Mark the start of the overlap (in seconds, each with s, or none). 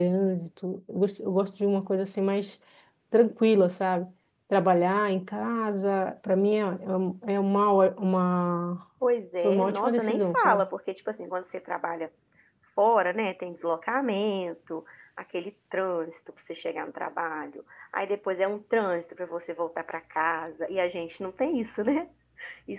9.4 s